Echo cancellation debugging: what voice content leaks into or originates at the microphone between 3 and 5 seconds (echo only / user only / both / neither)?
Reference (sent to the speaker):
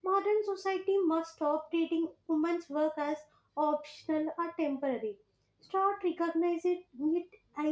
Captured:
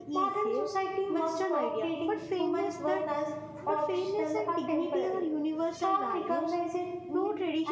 both